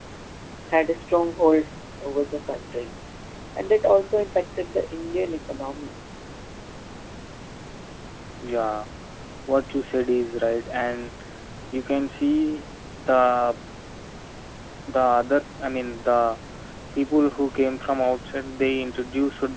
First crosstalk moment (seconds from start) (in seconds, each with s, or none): none